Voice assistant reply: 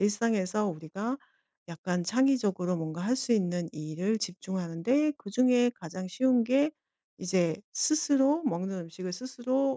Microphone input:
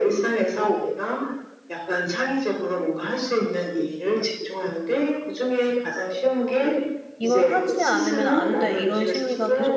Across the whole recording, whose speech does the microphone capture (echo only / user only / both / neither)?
both